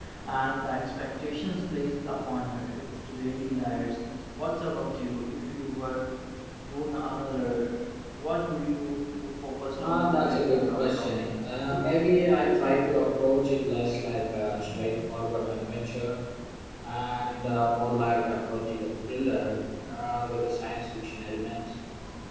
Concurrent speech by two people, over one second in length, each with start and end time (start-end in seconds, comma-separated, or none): 9.8-11.3